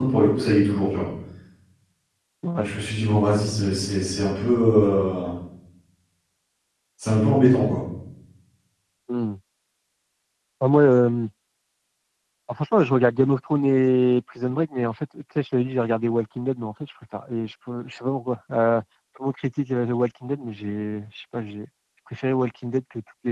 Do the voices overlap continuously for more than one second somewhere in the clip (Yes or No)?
No